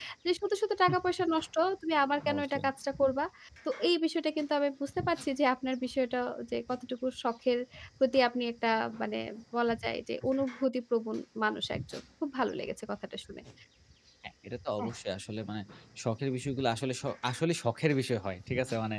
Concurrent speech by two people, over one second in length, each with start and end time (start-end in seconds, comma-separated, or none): none